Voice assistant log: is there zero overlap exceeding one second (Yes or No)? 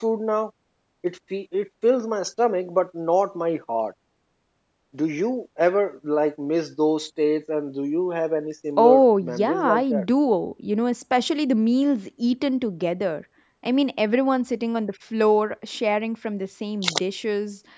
No